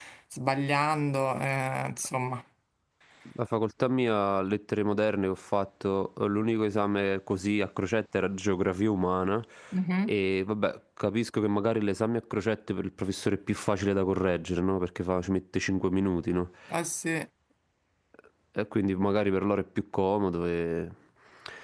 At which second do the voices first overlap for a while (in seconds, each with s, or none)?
none